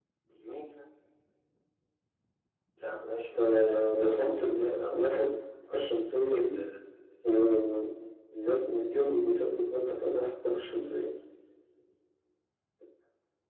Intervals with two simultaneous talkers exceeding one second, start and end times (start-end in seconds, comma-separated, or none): 3.4-5.3